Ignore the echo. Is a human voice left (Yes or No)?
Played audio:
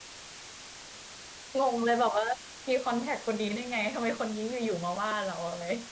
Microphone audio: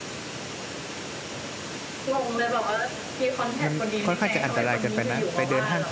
Yes